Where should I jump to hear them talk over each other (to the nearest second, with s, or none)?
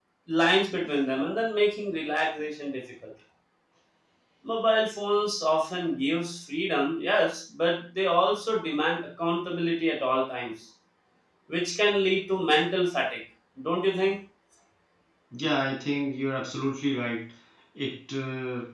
none